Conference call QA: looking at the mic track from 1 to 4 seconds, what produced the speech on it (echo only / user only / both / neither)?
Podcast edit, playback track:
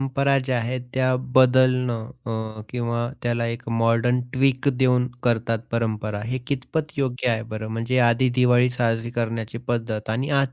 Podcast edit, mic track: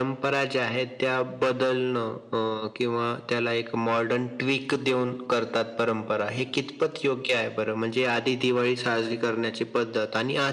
echo only